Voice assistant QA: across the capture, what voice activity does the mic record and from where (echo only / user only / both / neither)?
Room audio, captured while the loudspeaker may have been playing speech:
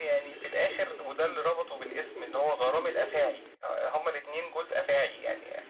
echo only